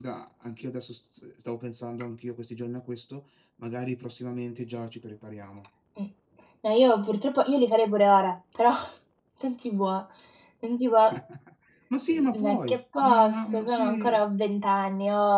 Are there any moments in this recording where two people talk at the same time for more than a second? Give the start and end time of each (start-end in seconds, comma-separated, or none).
12.3-14.2